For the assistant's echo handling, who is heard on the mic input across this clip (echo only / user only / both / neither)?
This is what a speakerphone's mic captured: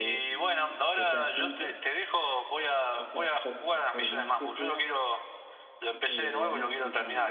both